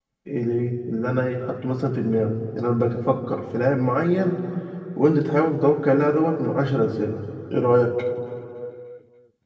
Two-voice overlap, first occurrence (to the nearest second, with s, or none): none